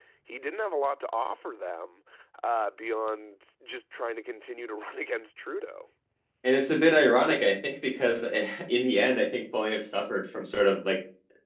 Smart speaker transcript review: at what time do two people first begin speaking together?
none

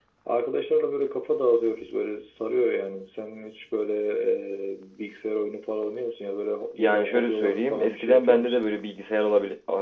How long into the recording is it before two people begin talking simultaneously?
7 s

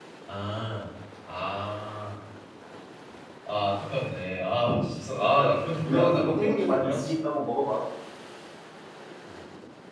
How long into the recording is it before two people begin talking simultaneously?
6 s

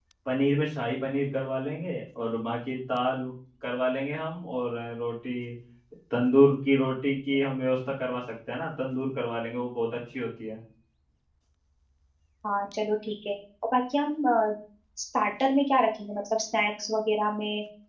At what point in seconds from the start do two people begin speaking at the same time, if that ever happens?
none

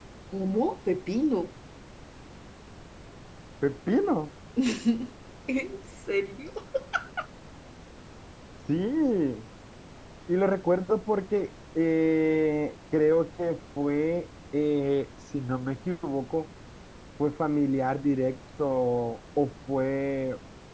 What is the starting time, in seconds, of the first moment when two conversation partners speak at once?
none

